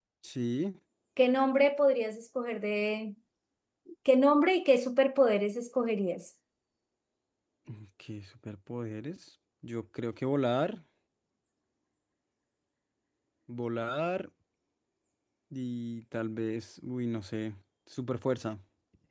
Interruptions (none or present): none